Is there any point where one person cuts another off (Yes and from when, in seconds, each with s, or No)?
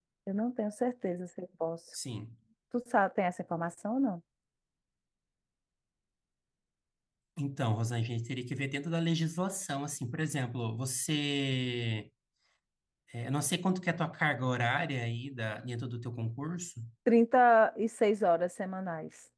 No